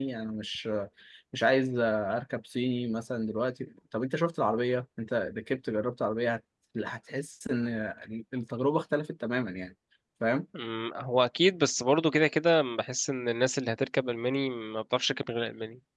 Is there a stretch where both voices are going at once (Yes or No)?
No